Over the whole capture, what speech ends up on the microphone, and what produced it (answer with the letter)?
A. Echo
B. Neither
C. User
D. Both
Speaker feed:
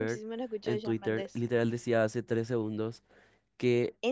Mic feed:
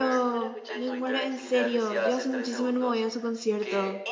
D